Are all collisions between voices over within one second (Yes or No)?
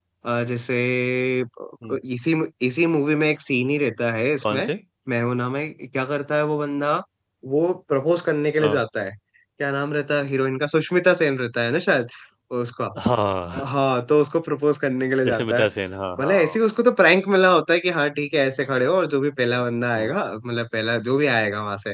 Yes